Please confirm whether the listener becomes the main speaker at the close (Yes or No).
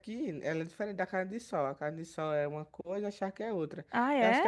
No